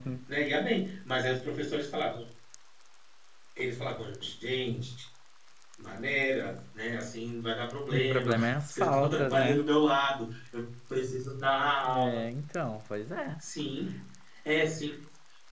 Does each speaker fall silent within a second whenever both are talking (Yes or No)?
No